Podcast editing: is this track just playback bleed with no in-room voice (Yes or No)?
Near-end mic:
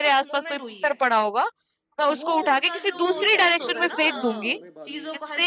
No